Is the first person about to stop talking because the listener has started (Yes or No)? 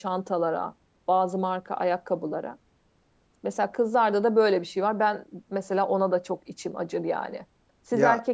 No